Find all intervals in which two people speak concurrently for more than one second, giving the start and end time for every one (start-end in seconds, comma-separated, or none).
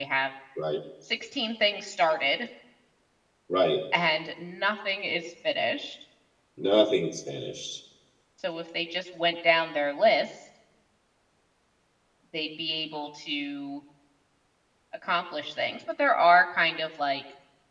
none